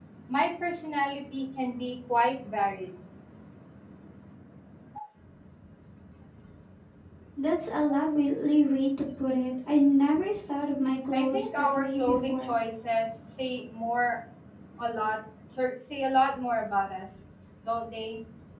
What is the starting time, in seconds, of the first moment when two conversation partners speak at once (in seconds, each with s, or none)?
11.1 s